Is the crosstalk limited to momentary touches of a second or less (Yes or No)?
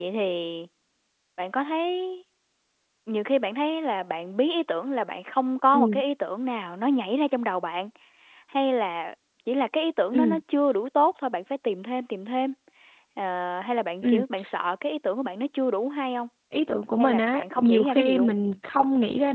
No